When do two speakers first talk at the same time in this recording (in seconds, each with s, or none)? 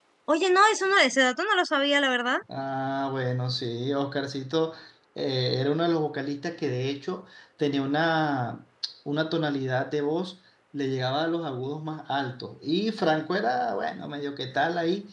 none